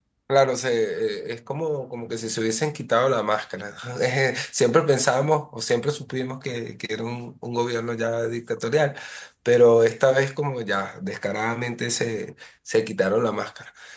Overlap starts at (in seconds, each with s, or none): none